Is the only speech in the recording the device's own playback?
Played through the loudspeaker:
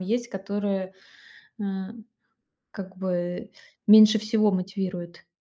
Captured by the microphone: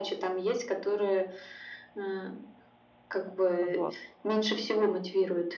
No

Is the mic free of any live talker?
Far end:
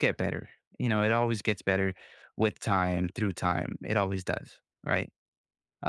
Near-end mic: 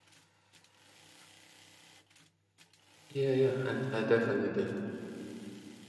No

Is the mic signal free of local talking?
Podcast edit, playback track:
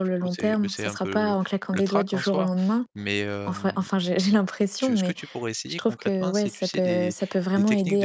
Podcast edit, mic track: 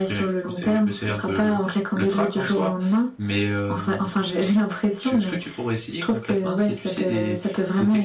Yes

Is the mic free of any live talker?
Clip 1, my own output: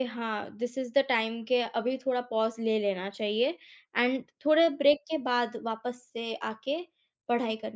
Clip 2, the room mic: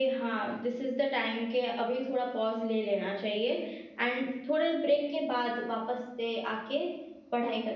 Yes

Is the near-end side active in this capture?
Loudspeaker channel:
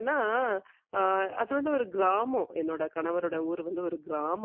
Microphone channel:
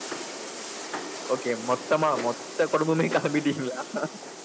Yes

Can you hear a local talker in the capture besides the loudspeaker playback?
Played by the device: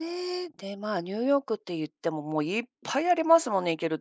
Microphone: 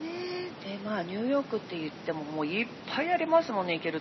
No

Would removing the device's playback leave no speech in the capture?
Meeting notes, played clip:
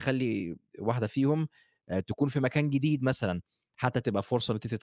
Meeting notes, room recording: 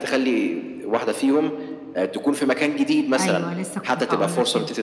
No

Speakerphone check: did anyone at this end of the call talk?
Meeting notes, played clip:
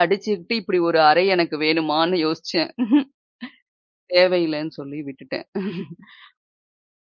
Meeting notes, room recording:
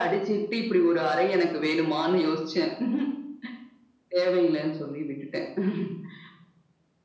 No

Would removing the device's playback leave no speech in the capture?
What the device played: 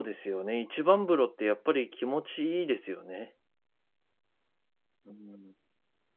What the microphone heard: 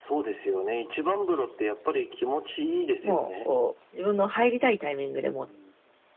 No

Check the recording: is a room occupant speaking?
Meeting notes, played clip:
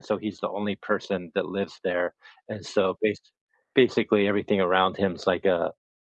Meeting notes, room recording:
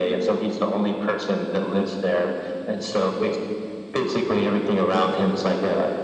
No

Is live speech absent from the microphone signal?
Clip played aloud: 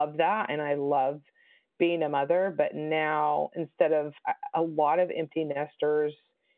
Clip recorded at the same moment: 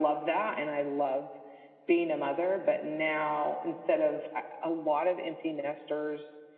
Yes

